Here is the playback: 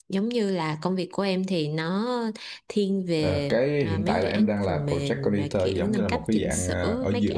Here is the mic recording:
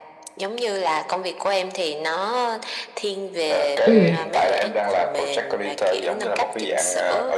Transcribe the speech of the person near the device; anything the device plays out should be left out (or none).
ừ